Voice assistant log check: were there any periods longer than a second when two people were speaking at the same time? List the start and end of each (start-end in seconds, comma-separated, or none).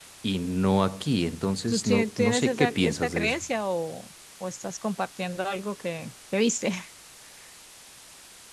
1.7-3.4